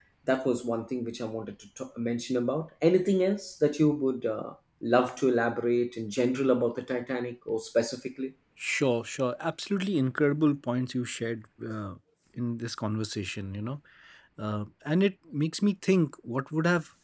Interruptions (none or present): none